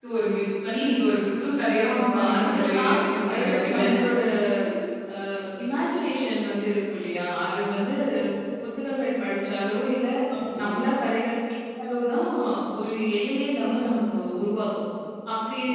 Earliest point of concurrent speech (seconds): 1.9 s

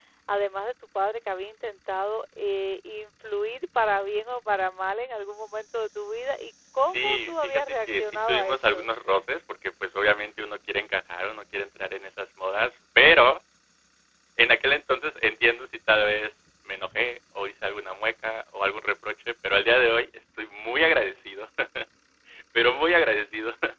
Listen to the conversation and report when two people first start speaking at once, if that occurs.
6.8 s

